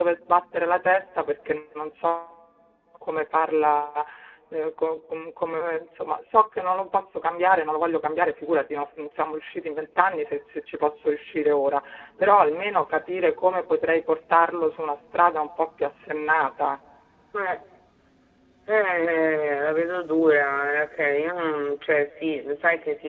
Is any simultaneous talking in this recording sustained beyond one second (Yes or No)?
No